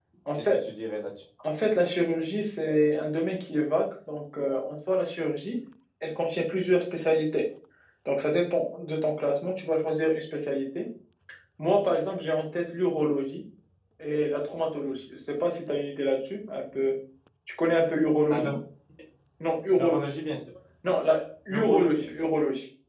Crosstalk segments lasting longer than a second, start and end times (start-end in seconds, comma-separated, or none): none